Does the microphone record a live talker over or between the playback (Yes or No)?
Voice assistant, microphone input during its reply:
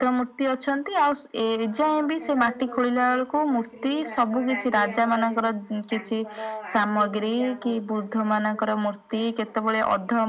Yes